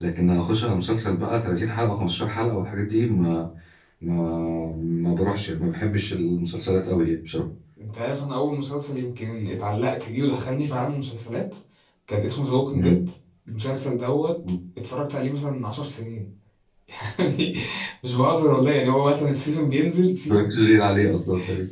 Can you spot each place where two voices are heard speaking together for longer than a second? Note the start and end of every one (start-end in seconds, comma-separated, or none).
none